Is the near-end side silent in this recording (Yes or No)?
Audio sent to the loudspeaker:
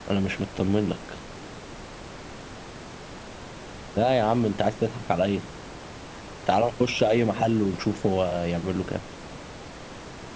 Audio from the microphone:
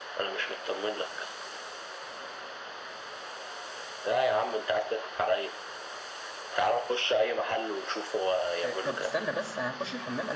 No